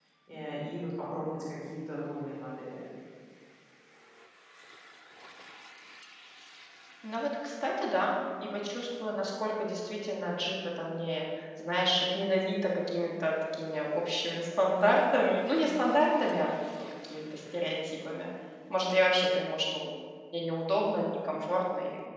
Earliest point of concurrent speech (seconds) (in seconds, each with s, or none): none